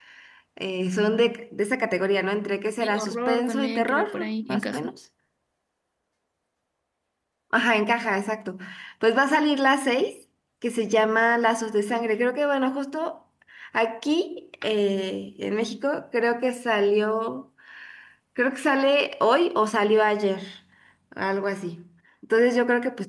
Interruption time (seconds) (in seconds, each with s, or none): 2.8 s